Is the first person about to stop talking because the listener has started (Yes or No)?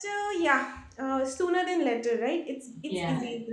No